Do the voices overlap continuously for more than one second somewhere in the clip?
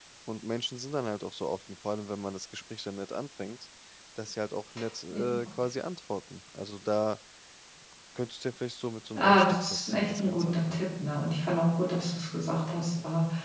Yes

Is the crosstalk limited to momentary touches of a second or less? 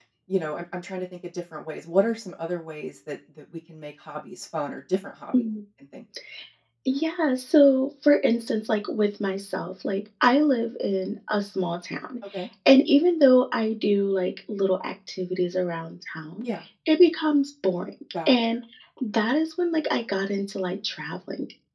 Yes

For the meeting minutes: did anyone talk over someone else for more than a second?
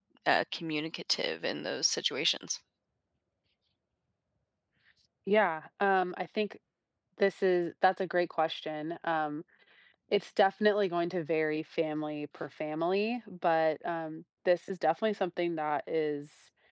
No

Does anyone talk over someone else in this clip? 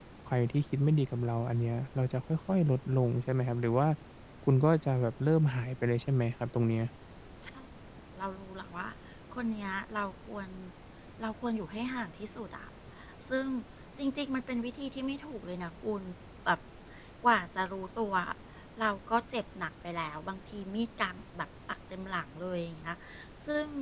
No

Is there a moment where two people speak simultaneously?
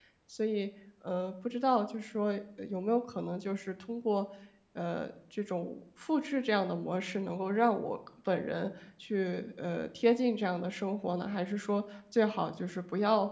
No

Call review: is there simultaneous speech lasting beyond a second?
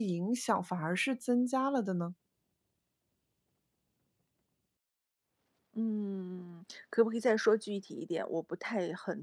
No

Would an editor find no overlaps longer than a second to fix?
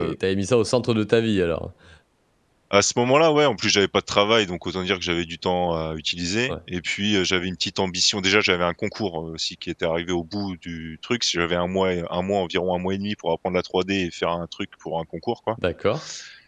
Yes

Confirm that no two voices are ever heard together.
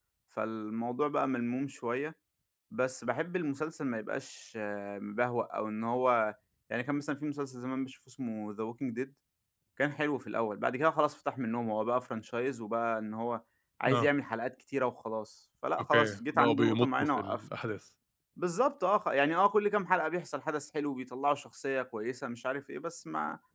No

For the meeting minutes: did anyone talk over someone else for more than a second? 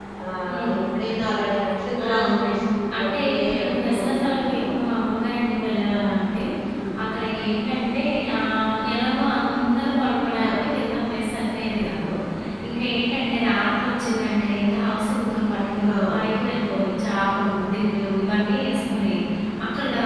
Yes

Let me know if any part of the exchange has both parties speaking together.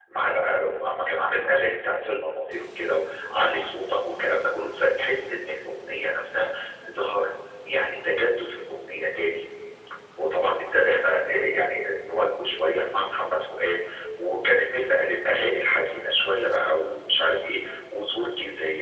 No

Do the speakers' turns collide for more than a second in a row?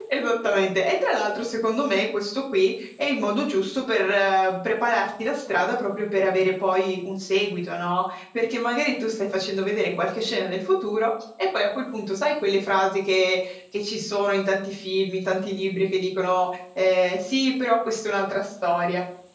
No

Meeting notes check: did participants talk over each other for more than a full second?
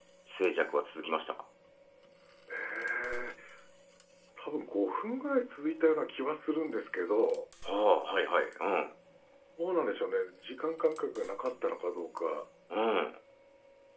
No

